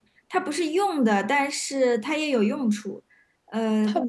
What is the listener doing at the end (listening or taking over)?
listening